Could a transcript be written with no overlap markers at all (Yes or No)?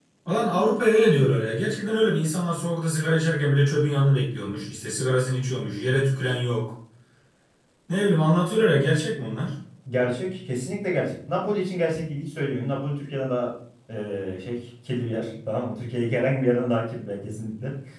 Yes